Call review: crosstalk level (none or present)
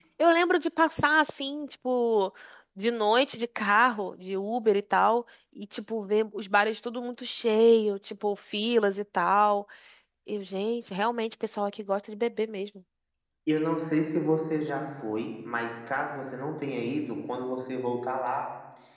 none